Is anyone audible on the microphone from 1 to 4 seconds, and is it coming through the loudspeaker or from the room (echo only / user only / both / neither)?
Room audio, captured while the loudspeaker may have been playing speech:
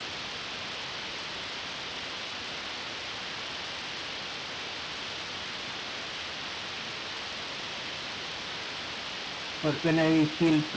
neither